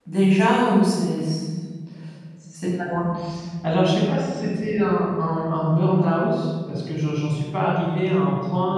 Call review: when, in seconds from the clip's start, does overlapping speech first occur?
none

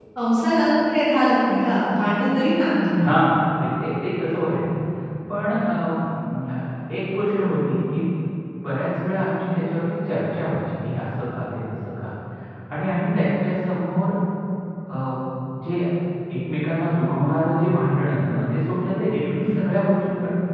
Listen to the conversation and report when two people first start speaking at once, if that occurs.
none

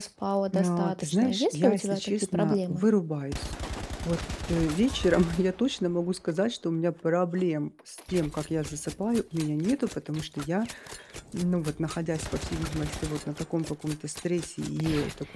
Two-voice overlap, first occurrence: 0.5 s

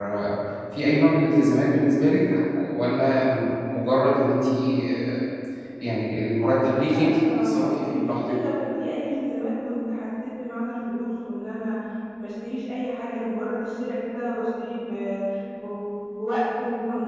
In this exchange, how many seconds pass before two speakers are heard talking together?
6.8 s

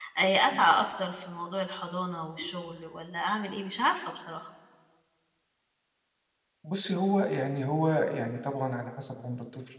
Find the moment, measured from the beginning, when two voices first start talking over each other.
none

